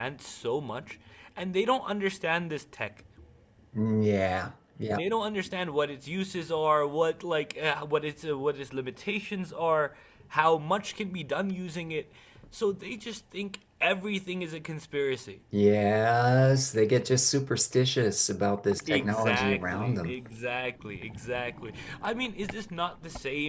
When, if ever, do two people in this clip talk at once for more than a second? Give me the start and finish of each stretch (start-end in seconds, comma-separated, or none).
18.9-20.1